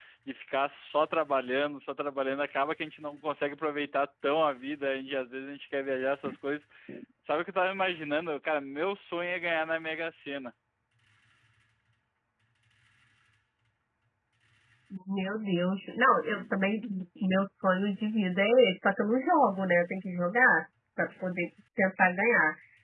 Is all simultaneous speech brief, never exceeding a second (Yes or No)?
Yes